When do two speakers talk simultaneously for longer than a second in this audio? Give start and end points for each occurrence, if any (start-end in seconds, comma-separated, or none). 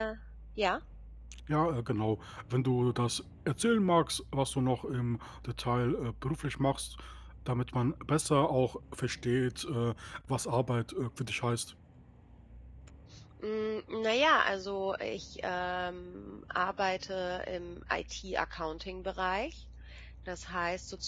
none